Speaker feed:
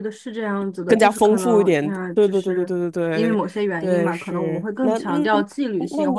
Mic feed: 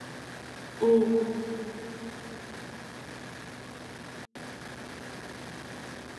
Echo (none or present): none